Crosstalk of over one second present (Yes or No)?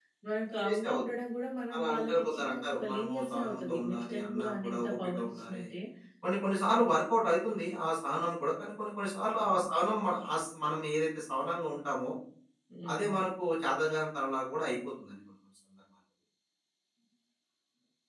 Yes